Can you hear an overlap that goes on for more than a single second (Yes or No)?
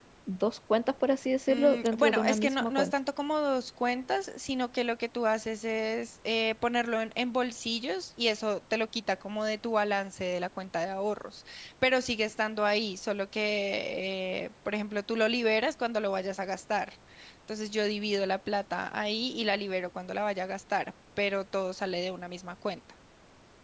Yes